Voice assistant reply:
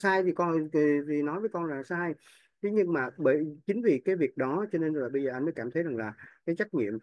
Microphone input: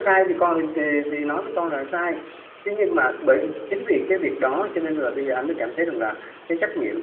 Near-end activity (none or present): none